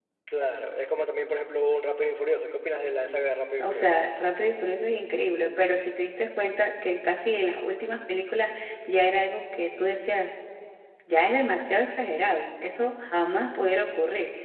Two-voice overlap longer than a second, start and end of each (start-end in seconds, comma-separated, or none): none